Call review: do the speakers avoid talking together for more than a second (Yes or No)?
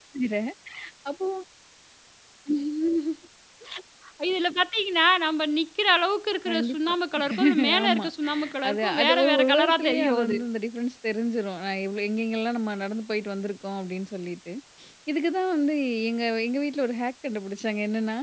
No